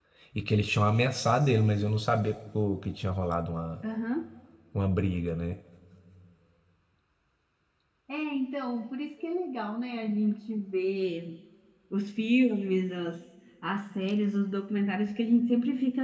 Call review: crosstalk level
none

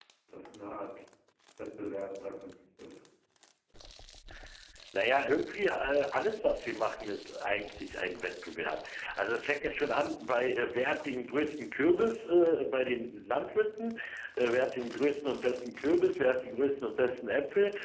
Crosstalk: none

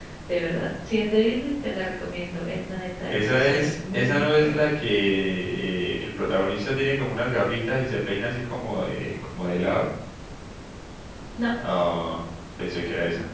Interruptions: present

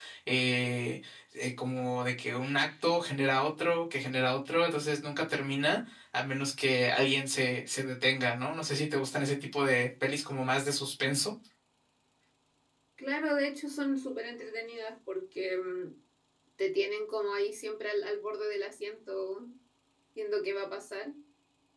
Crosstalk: none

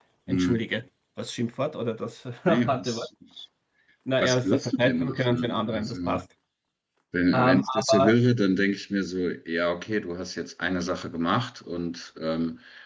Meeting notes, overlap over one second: present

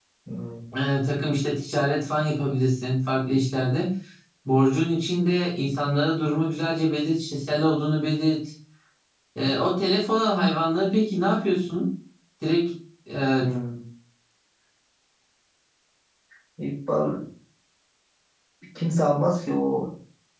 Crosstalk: none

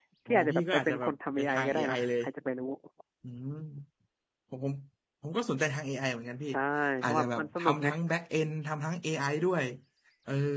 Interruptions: present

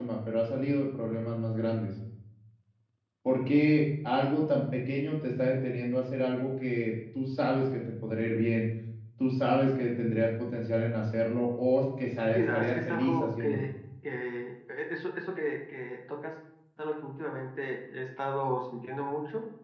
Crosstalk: present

